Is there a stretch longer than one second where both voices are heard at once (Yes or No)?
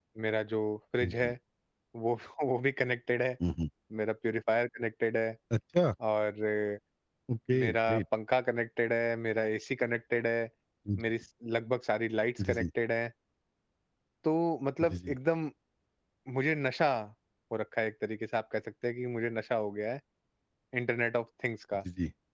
No